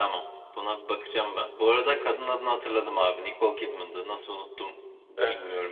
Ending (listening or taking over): listening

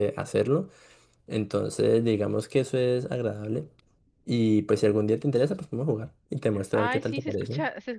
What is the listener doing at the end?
taking over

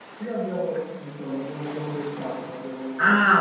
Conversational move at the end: taking over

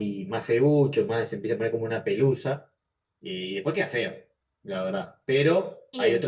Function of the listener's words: listening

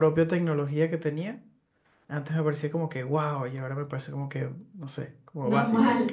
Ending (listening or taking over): taking over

